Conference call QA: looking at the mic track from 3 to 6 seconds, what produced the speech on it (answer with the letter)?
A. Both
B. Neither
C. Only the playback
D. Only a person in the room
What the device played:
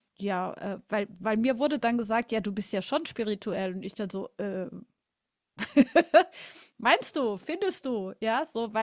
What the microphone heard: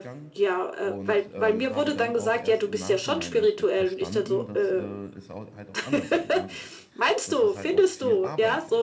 A